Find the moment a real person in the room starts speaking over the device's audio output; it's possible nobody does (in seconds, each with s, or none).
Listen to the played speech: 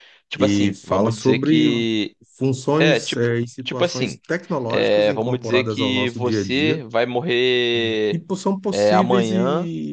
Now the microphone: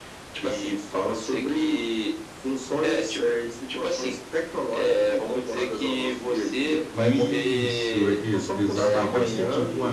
6.9 s